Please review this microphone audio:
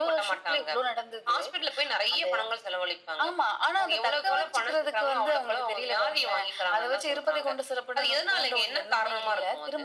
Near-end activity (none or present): none